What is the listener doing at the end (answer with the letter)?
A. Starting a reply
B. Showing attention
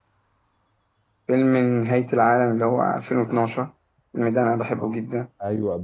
A